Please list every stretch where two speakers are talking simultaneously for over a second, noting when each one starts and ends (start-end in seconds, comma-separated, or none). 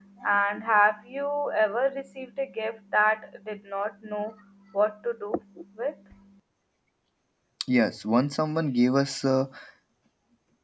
none